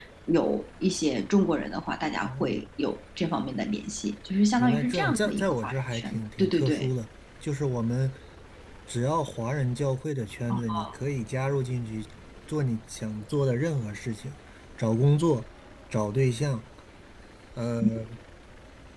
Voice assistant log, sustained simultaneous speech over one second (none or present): present